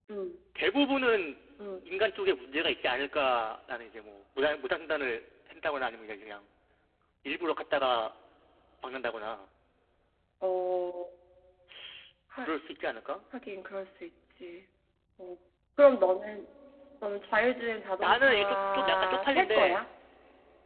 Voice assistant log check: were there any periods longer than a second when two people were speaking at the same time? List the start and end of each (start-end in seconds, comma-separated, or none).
18.0-19.8